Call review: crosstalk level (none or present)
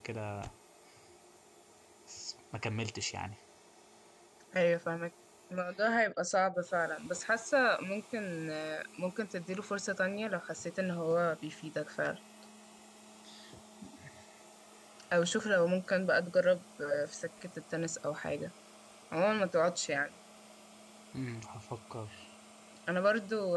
none